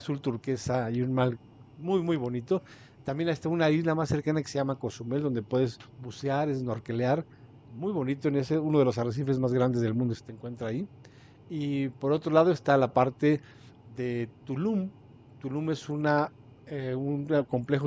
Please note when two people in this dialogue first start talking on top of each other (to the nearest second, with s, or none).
none